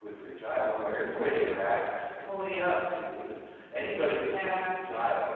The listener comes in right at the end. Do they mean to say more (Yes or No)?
No